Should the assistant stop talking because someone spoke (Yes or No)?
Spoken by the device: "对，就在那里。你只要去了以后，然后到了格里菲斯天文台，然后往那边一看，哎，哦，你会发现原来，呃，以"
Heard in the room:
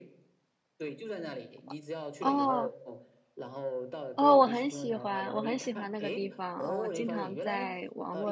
Yes